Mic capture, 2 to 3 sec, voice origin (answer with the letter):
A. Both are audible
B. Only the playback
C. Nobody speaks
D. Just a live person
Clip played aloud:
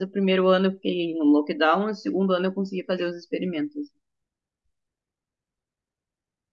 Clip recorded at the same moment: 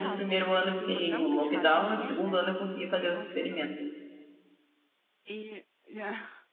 A